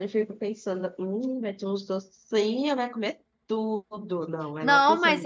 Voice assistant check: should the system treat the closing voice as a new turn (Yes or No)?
Yes